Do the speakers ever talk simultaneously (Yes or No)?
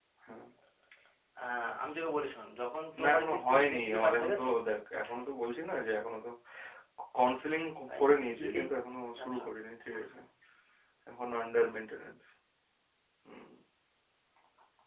Yes